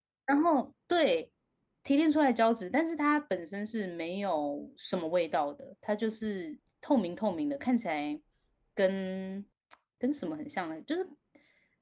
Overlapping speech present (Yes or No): No